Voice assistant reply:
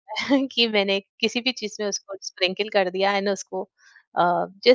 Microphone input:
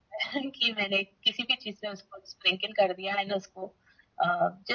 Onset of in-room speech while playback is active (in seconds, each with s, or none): none